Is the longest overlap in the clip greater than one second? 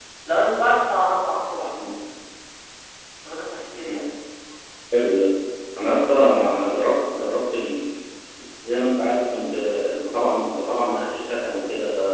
No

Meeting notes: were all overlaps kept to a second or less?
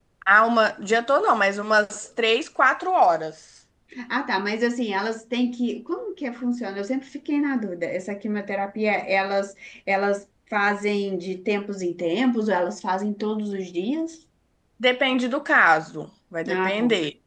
Yes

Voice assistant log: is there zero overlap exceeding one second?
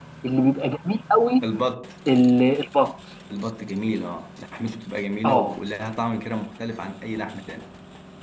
Yes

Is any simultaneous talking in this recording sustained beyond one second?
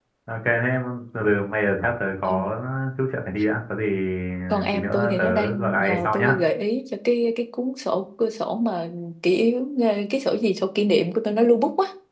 Yes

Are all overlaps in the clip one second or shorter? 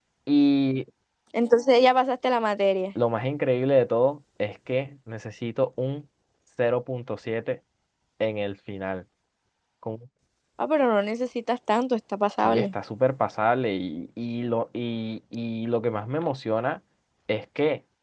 Yes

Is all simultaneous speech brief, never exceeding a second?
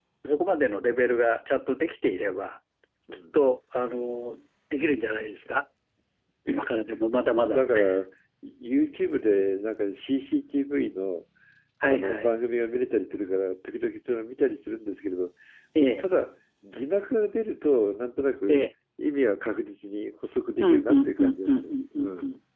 No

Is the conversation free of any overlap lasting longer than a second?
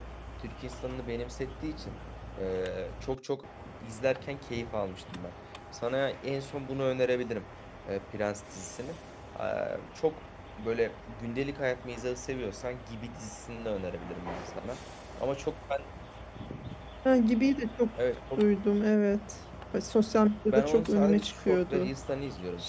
No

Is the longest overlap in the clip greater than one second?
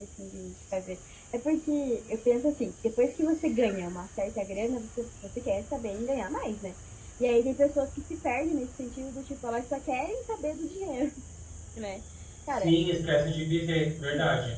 No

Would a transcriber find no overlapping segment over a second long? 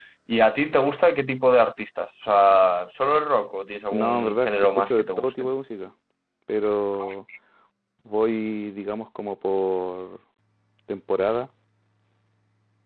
No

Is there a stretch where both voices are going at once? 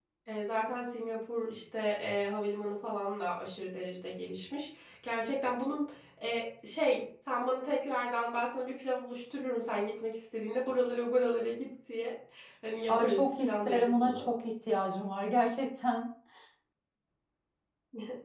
Yes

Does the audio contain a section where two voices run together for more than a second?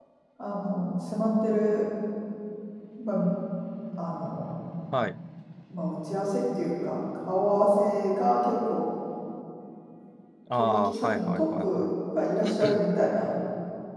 Yes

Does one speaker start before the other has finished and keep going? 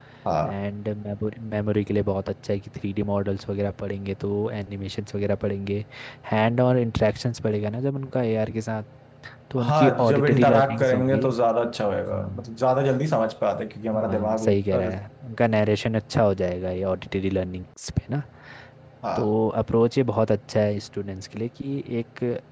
Yes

